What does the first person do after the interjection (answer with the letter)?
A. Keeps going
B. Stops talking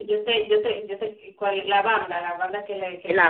B